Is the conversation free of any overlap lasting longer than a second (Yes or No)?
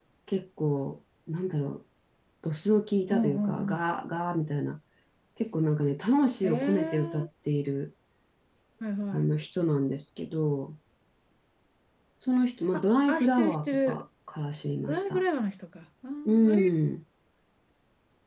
No